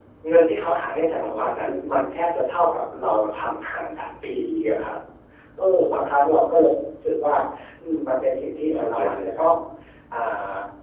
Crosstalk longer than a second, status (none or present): present